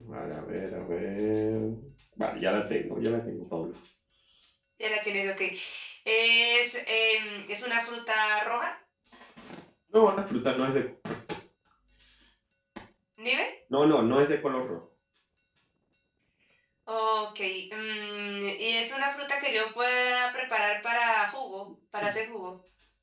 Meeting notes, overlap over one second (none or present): none